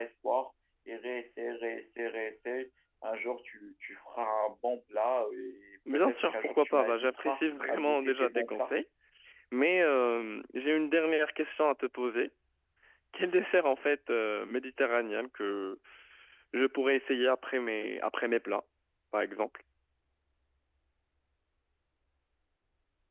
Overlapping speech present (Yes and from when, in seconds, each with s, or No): Yes, from 5.9 s